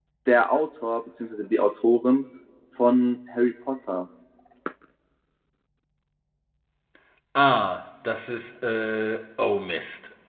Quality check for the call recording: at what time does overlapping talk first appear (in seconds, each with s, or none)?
none